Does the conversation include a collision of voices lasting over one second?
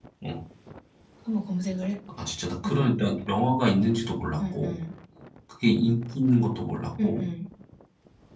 No

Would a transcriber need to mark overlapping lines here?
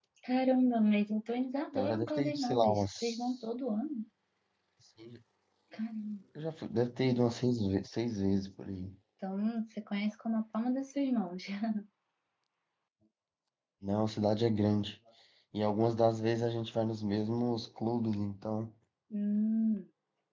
Yes, from 1.8 s

